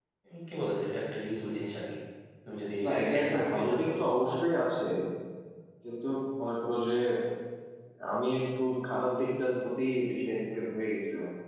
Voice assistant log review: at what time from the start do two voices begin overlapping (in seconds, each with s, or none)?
2.8 s